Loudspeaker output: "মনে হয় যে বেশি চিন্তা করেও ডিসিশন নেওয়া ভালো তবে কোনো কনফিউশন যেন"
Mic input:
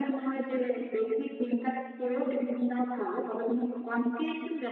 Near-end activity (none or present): none